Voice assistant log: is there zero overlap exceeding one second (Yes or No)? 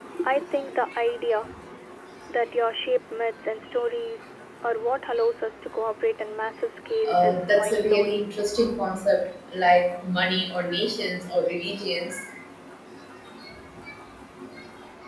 No